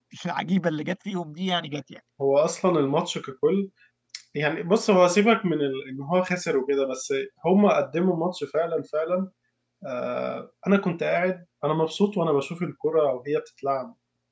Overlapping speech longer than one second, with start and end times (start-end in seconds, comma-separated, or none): none